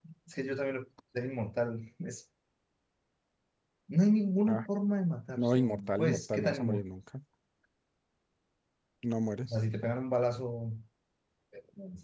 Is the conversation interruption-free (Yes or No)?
No